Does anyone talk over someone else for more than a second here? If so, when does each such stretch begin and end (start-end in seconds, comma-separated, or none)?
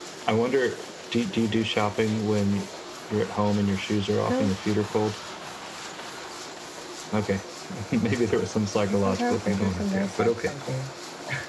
8.8-10.5